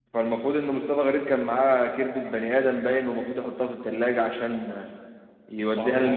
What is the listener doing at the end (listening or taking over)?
listening